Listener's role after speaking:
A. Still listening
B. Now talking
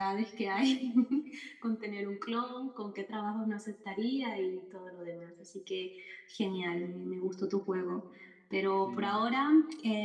A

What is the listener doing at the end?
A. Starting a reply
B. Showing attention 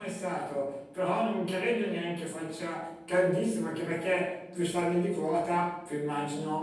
B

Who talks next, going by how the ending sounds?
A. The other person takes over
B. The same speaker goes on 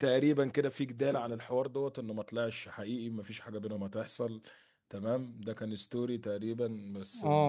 B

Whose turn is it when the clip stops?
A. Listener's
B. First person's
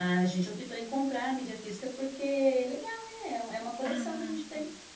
A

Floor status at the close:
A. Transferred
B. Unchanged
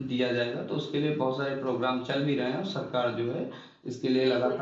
A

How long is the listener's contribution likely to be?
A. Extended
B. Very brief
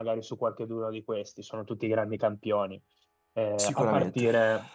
B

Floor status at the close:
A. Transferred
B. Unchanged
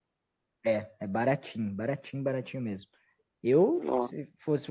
B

